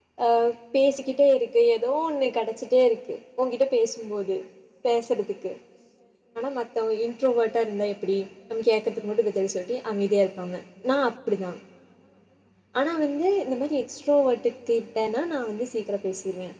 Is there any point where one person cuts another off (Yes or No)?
No